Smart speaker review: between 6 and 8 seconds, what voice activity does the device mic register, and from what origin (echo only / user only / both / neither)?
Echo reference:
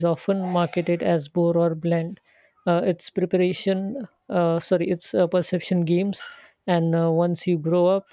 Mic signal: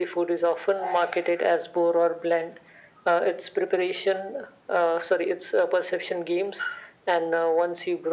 echo only